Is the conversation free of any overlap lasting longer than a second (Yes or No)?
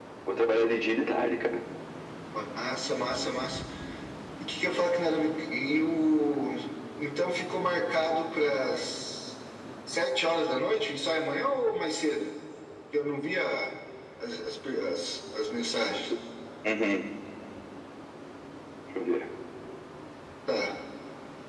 Yes